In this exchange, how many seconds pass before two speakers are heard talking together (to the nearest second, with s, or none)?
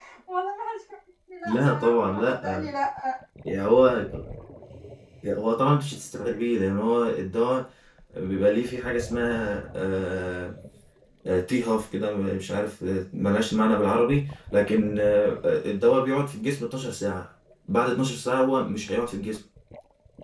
1 s